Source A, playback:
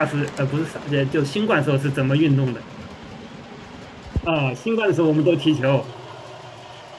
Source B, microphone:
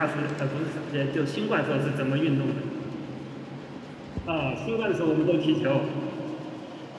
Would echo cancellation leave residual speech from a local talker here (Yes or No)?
No